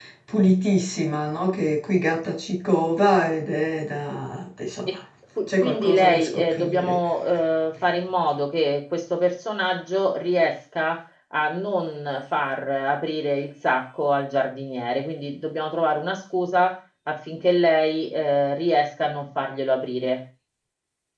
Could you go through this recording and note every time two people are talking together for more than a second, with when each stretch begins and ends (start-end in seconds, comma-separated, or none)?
5.6-7.0